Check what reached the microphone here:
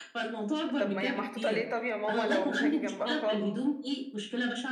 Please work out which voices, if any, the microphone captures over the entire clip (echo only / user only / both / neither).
both